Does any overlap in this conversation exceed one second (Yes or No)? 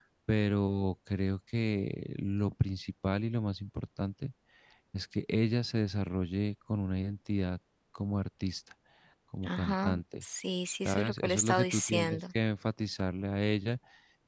Yes